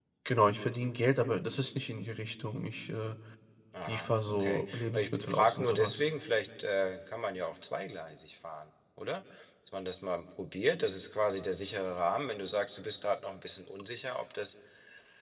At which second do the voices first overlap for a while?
3.8 s

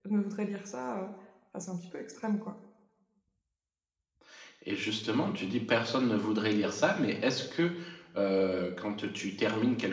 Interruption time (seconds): none

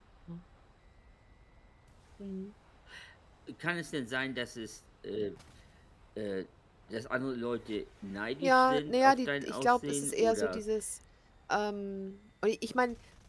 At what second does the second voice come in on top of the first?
8.4 s

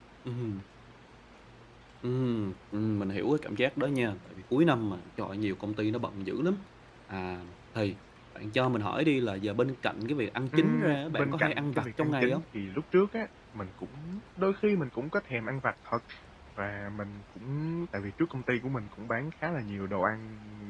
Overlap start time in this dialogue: 10.5 s

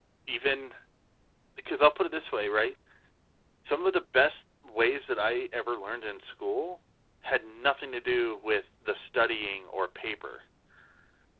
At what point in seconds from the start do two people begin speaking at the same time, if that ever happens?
none

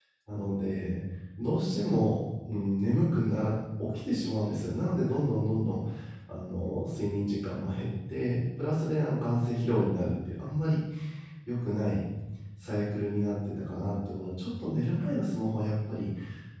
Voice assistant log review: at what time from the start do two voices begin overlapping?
none

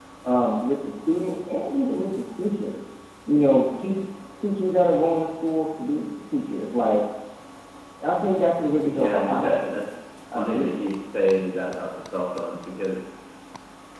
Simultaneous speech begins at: 8.9 s

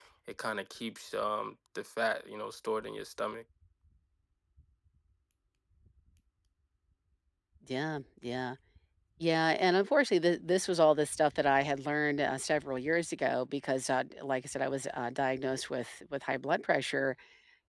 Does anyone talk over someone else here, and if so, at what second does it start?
none

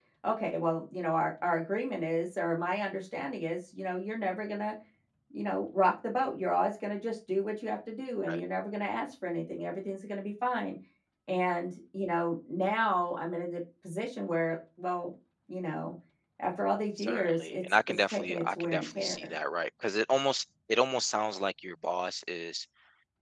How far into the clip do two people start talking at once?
17.0 s

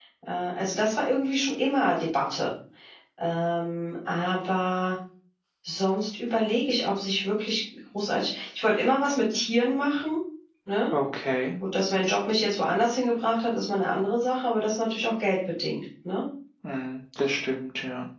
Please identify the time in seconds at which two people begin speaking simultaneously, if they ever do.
none

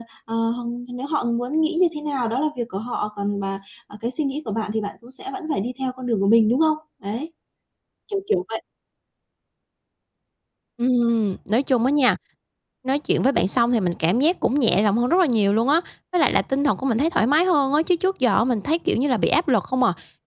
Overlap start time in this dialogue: none

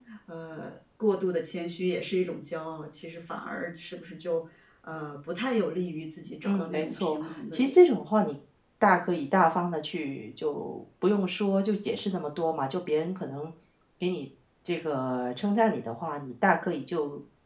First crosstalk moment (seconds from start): 6.4 s

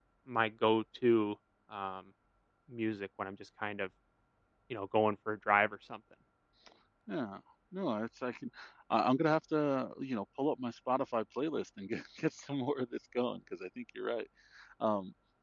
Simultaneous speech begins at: none

